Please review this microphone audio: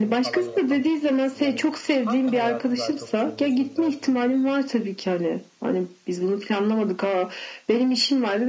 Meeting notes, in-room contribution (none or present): present